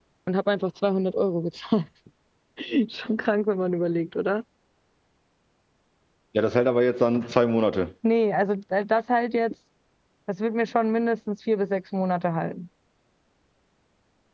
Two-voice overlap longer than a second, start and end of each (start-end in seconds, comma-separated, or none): none